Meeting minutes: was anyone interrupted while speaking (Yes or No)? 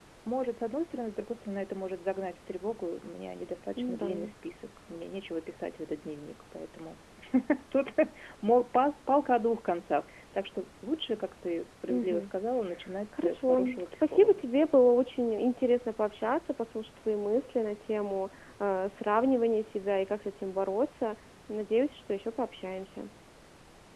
Yes